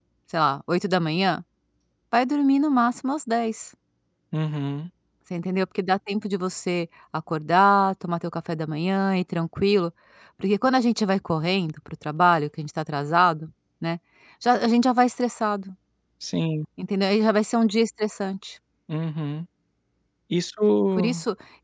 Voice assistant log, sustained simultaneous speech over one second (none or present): none